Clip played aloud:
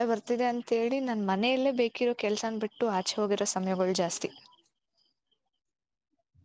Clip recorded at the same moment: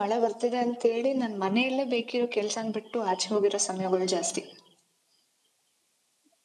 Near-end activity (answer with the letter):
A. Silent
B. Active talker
A